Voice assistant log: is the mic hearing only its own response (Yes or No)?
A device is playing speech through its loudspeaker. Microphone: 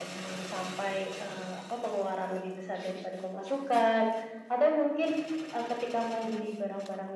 Yes